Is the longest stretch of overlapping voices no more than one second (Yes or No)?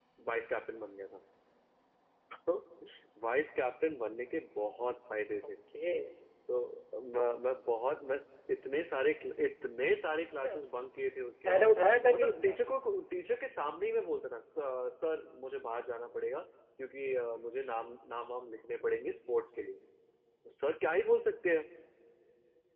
Yes